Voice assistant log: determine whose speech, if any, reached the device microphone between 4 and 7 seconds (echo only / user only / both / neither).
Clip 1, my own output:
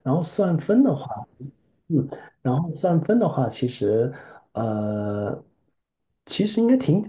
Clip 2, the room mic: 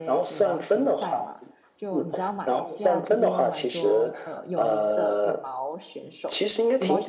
both